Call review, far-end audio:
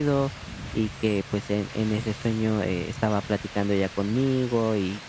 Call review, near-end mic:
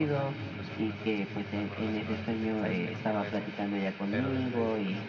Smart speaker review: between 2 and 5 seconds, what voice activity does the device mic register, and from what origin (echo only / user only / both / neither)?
both